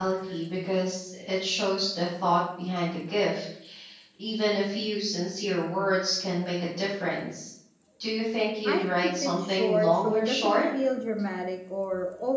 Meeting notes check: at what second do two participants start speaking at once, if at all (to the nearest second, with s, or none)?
9 s